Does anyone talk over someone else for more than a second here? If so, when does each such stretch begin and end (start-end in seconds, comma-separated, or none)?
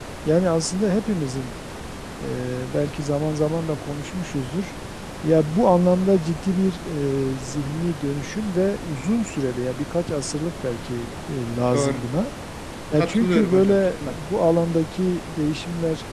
13.0-14.3